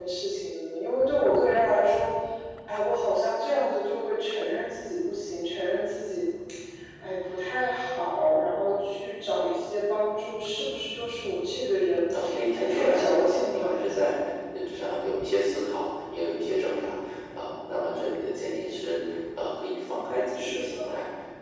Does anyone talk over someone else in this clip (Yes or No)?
Yes